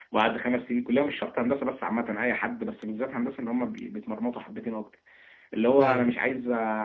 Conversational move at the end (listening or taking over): listening